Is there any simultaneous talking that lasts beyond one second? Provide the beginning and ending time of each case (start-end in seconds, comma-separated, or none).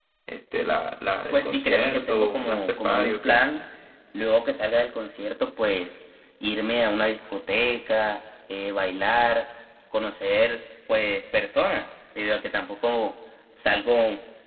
1.3-3.4